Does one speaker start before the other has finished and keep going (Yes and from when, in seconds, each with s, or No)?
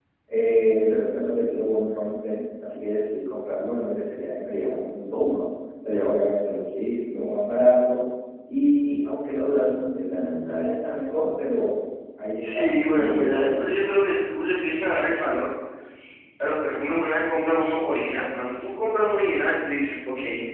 Yes, from 12.4 s